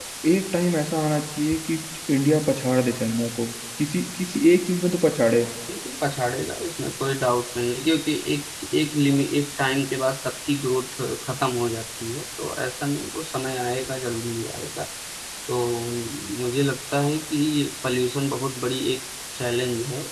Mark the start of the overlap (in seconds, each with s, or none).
none